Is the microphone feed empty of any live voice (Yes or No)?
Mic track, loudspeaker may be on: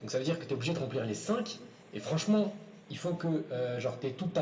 Yes